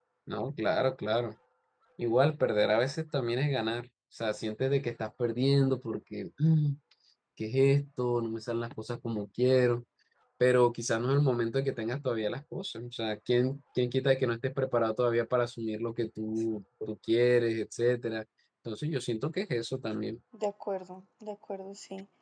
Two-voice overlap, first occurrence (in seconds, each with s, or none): none